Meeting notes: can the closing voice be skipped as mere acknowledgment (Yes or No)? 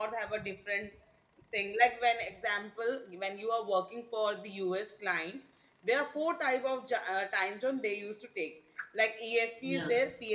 Yes